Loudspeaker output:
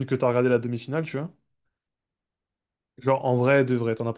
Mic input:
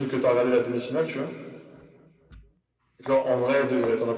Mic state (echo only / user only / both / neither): echo only